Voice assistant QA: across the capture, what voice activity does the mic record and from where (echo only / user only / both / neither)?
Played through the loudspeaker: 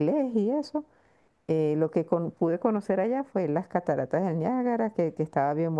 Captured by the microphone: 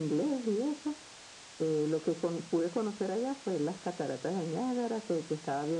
echo only